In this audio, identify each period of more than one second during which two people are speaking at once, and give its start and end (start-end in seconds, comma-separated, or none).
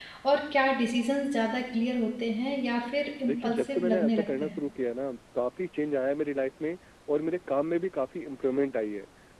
3.2-4.6